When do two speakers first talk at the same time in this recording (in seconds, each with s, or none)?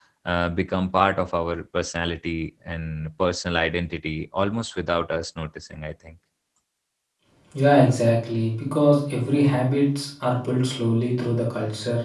none